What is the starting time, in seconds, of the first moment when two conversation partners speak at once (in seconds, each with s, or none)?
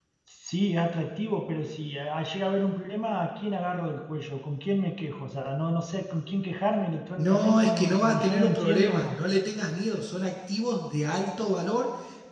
7.2 s